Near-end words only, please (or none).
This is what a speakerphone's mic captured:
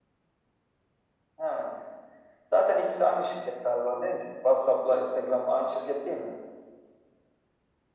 none